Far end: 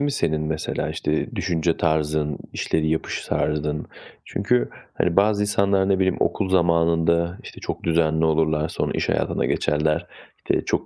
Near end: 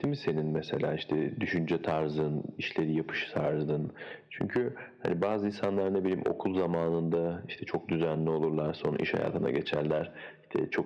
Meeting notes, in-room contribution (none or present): none